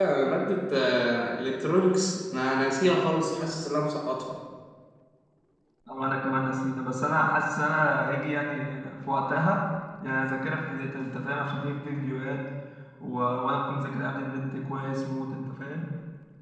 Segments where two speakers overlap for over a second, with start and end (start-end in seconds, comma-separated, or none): none